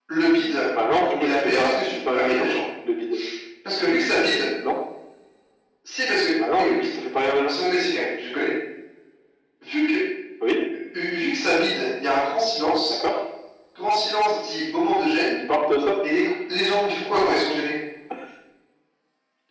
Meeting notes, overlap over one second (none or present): present